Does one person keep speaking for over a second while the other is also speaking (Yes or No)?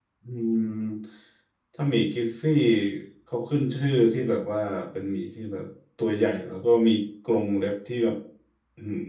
No